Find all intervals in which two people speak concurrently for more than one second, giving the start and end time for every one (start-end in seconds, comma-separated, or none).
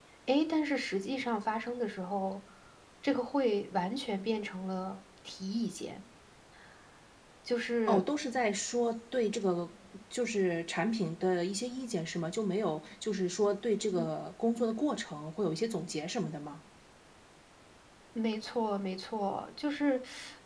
none